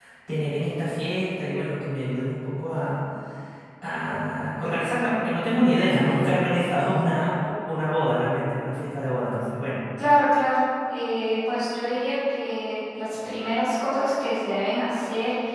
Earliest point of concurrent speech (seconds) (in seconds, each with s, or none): none